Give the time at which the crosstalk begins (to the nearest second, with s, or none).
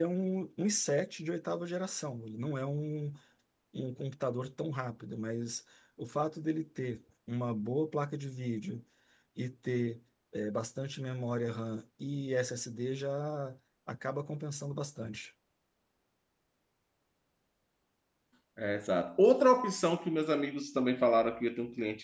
none